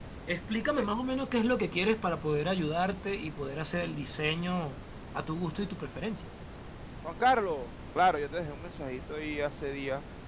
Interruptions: none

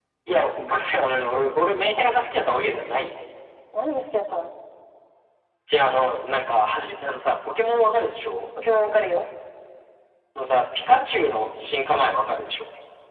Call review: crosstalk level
none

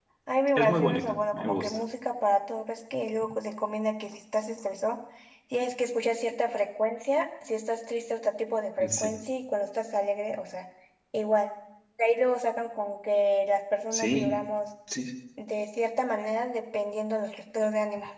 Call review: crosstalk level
present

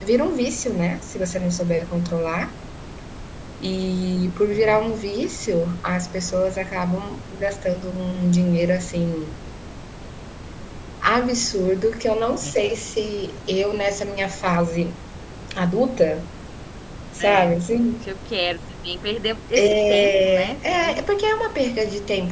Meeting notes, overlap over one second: present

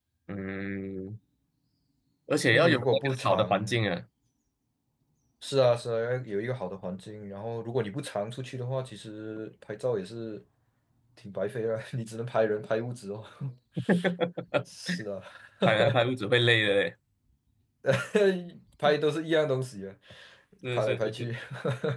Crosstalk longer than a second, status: present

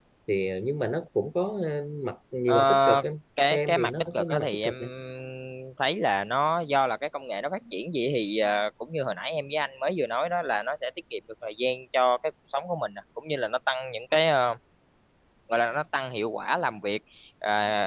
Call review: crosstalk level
present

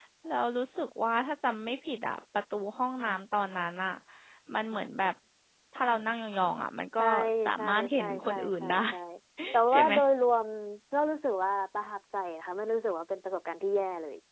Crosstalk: present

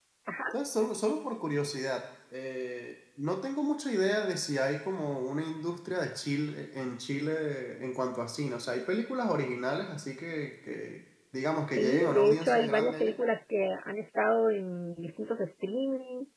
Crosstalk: present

